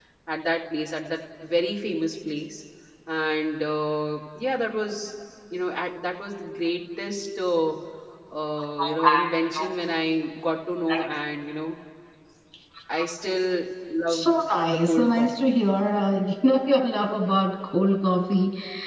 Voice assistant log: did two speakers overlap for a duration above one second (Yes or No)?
Yes